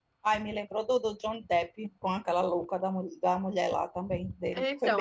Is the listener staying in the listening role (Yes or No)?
No